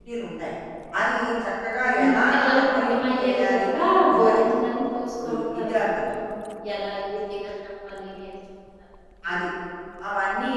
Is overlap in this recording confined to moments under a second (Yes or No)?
No